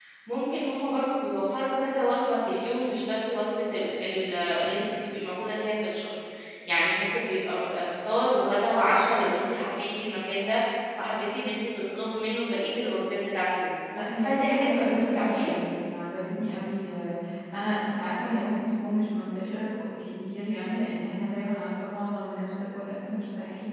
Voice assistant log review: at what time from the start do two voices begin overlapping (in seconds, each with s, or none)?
14.2 s